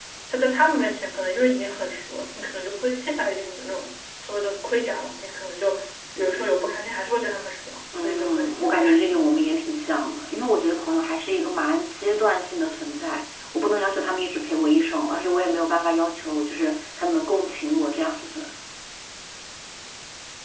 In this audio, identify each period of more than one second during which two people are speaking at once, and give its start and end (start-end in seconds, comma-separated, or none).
8.0-9.2